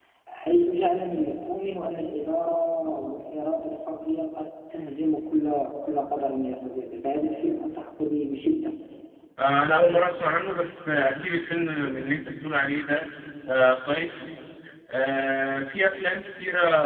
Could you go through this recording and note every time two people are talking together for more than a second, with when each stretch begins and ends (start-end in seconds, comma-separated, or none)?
none